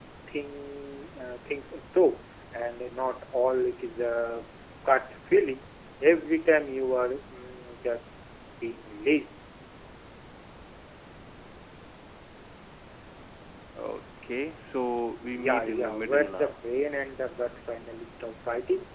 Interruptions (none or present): present